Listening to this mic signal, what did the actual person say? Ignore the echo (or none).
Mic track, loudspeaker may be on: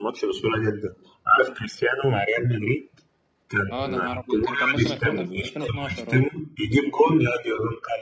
اه ده نهار ابيض كان كان موسم 2000 2012 اه